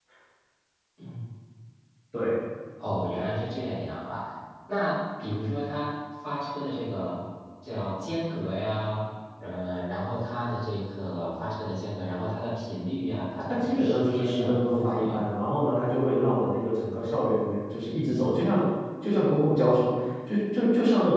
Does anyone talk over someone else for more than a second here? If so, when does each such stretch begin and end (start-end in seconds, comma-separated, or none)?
13.5-15.2